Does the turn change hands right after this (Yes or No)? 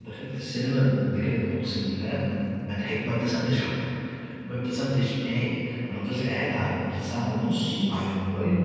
No